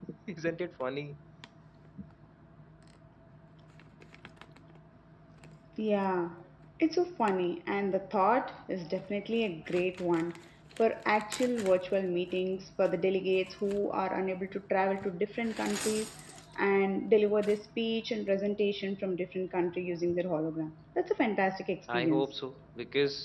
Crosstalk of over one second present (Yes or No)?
No